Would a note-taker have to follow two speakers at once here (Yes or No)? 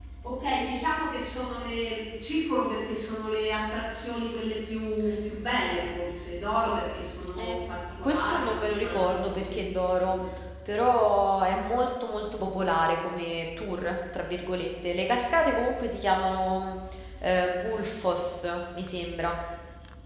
Yes